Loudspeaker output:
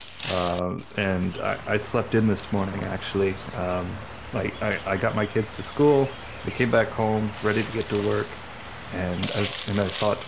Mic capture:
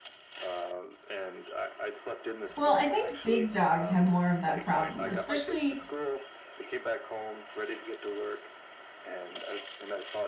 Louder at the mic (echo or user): user